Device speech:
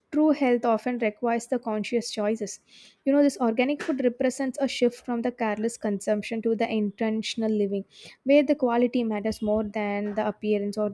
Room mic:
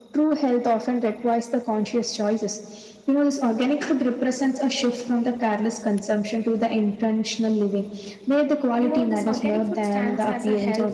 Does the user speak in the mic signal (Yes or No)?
Yes